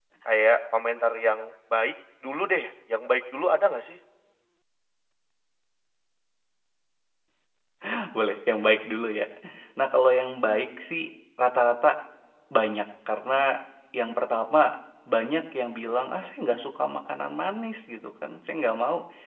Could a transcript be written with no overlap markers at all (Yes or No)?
Yes